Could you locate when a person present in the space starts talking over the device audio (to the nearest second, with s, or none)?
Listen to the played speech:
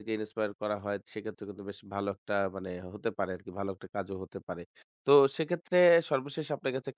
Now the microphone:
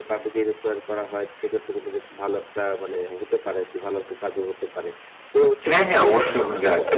6 s